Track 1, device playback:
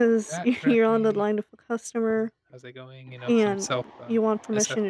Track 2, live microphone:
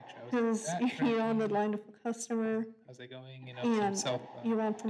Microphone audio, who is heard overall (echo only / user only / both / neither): echo only